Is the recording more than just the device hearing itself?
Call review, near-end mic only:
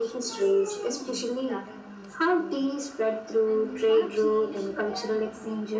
Yes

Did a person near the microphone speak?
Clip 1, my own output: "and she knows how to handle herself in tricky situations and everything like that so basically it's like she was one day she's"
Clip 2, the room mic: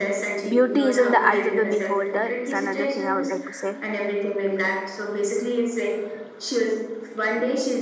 Yes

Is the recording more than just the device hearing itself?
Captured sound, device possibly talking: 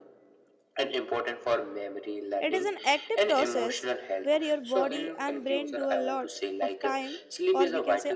Yes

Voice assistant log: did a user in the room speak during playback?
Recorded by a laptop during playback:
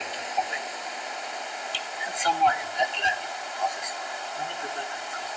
No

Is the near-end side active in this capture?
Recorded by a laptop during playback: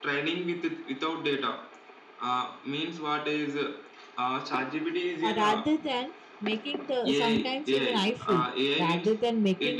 Yes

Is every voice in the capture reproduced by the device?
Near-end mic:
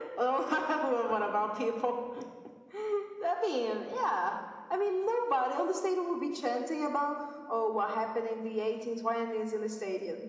Yes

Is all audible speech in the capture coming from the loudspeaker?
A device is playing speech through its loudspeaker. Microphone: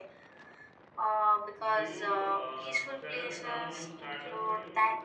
No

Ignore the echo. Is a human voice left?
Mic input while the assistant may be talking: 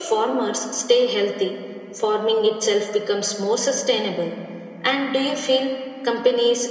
No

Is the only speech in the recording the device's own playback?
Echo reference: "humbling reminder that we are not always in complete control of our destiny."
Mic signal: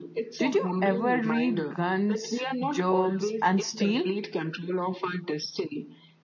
No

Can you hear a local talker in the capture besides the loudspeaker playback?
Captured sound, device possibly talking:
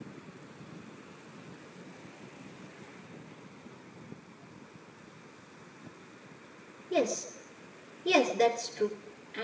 Yes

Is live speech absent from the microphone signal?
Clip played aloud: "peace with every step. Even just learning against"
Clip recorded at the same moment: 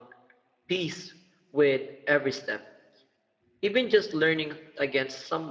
Yes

